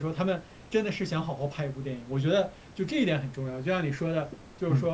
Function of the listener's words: listening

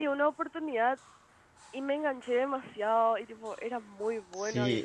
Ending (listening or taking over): taking over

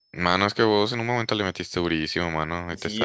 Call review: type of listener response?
taking over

